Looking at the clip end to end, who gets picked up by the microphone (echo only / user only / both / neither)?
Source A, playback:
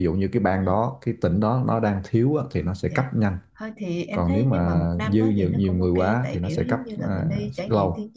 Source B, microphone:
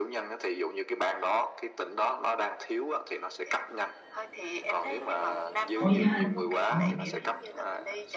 both